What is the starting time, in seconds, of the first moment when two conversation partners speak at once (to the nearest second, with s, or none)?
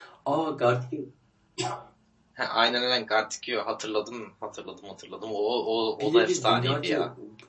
6 s